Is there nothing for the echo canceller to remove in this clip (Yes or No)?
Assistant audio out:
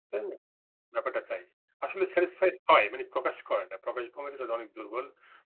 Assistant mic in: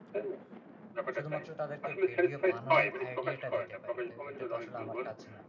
No